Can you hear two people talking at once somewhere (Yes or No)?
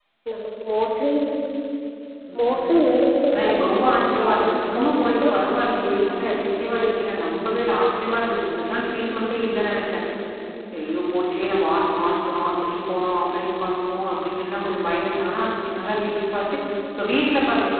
Yes